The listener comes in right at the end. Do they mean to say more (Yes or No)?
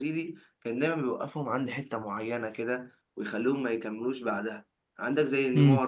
No